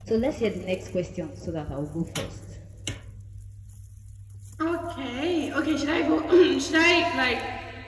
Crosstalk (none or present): none